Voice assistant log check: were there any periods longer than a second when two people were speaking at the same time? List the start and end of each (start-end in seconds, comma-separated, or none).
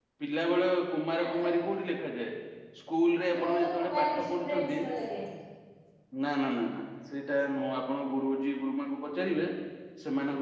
3.4-4.8